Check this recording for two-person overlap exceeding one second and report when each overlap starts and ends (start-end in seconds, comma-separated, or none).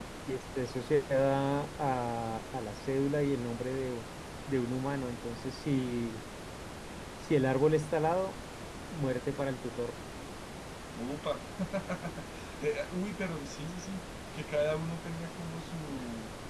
none